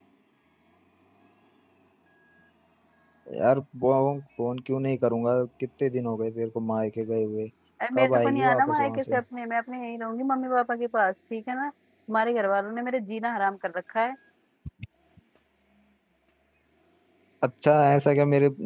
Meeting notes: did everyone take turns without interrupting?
No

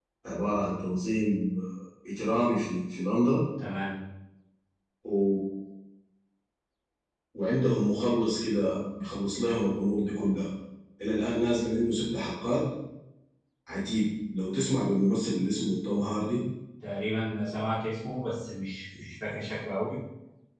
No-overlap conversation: Yes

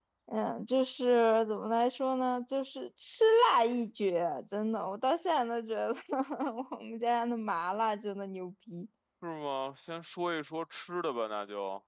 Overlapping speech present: No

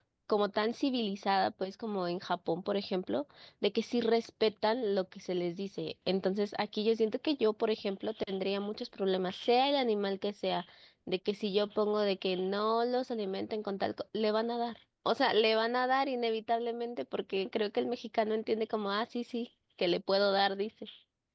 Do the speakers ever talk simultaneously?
No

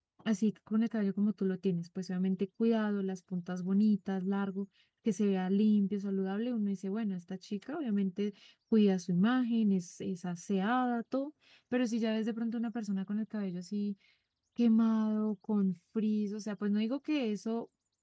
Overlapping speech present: No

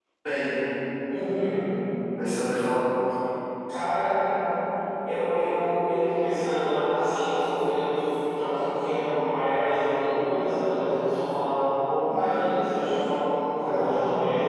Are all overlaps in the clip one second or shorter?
Yes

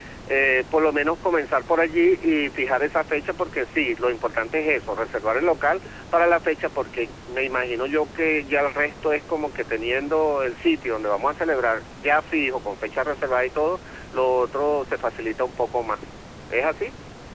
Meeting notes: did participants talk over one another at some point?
No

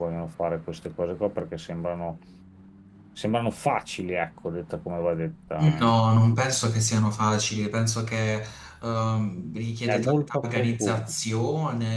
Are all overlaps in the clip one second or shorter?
No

